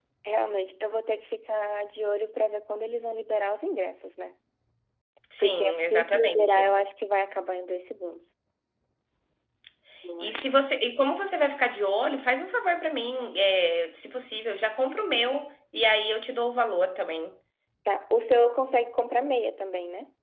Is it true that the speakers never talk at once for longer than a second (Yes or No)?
No